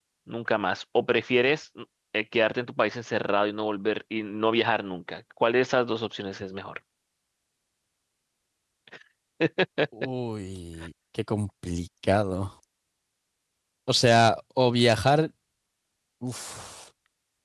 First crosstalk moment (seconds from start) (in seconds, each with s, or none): none